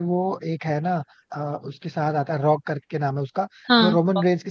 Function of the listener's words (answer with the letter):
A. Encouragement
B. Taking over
A